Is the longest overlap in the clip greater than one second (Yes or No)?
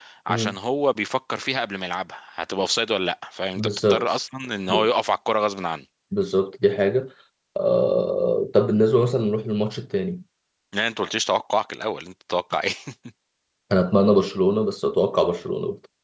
No